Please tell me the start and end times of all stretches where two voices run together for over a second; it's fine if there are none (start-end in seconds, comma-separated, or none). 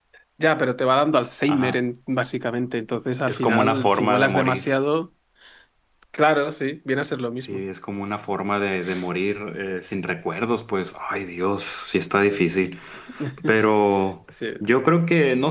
3.3-4.6